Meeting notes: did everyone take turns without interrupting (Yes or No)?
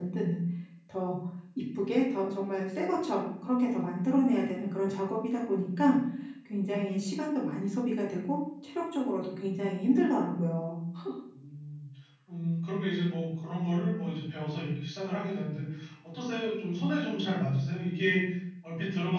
Yes